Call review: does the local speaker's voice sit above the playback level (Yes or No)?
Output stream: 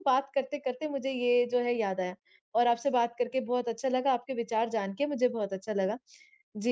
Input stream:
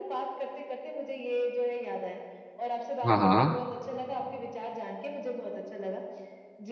Yes